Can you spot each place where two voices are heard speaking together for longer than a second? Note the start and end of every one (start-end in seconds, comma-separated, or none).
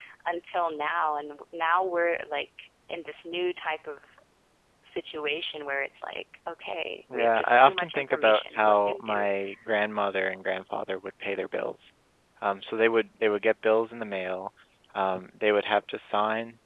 7.1-9.3